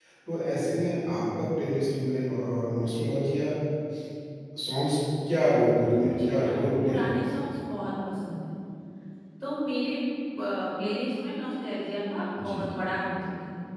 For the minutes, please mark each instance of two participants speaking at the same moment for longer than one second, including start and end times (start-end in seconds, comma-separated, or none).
5.9-7.3